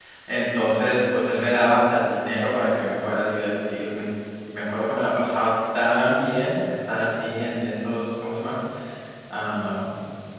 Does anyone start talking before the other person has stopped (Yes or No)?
No